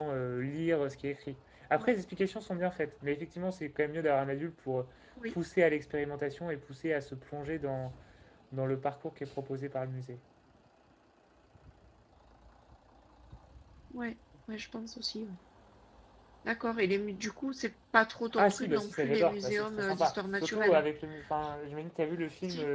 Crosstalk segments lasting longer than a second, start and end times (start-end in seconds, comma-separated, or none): 18.4-20.8